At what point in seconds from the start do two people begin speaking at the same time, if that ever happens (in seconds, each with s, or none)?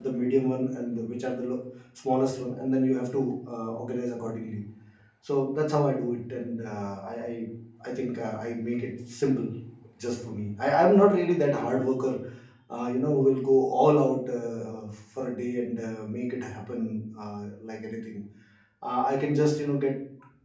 none